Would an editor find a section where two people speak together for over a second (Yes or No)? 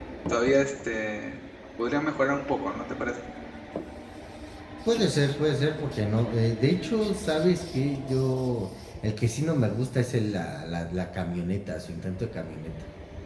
No